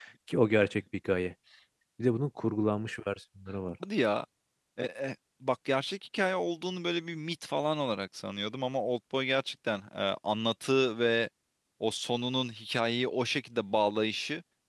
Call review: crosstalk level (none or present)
none